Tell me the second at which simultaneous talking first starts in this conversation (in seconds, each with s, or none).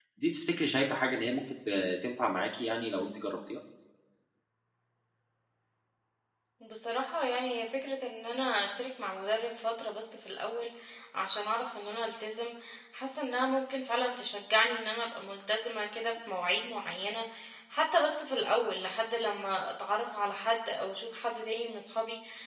none